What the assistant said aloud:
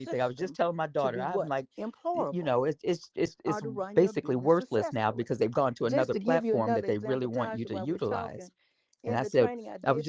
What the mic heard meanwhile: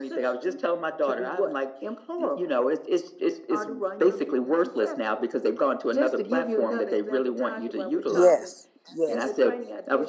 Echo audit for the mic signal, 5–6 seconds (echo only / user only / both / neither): echo only